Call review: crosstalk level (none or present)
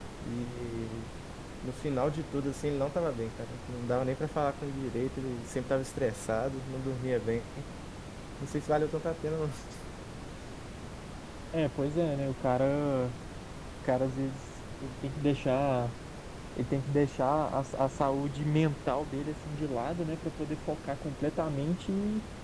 none